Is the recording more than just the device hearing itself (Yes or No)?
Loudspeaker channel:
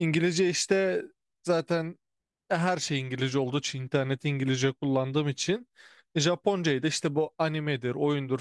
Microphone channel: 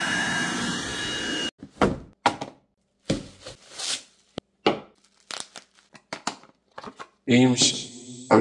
Yes